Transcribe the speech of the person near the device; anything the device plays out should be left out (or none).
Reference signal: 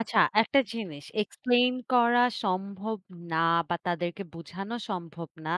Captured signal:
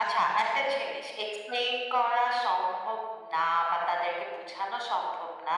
none